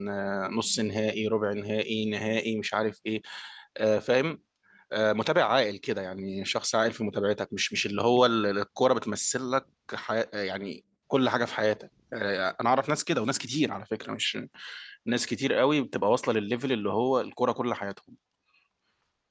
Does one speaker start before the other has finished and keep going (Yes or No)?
No